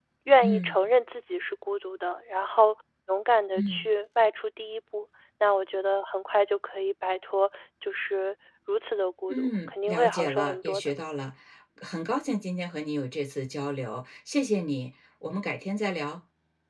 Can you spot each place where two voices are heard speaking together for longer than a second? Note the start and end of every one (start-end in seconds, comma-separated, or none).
9.3-10.8